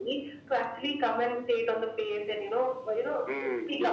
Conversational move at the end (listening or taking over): taking over